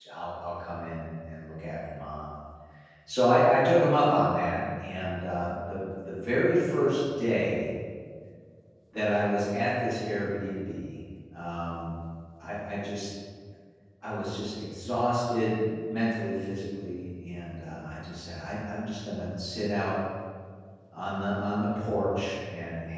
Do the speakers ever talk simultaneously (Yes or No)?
No